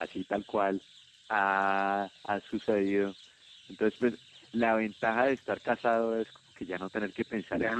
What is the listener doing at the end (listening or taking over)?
taking over